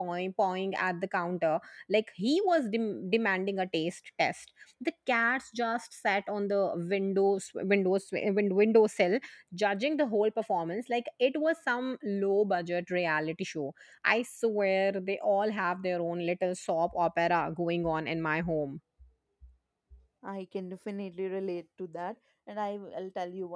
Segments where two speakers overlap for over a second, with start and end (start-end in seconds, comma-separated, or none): none